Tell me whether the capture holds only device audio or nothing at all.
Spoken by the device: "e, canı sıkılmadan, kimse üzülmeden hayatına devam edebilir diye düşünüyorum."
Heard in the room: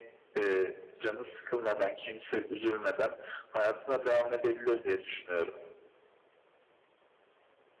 Yes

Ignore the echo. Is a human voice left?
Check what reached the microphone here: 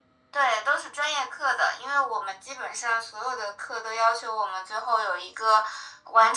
No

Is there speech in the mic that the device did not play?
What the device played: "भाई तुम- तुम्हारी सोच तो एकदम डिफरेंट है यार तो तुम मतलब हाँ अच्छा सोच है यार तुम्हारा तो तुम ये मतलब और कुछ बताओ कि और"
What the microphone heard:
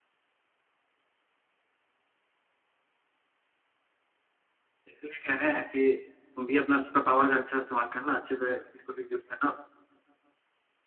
Yes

